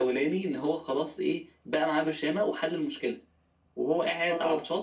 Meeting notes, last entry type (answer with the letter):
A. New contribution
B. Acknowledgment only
B